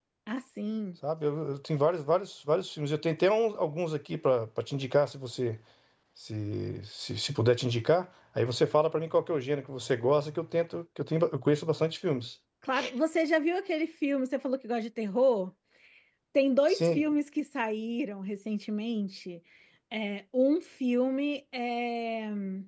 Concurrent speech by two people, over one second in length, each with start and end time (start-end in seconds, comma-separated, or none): none